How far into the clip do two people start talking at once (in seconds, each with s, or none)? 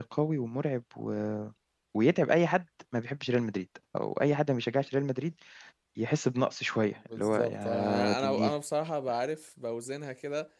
7.1 s